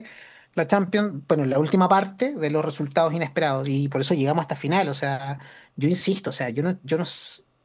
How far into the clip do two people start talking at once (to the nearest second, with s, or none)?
none